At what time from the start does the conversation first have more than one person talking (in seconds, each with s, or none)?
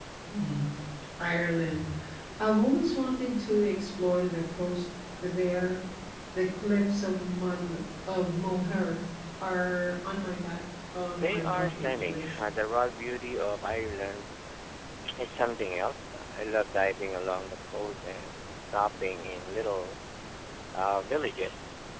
11.2 s